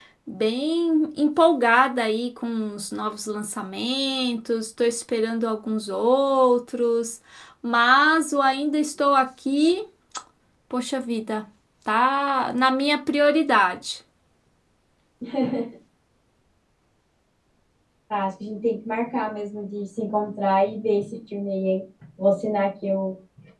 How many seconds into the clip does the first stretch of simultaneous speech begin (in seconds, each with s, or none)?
none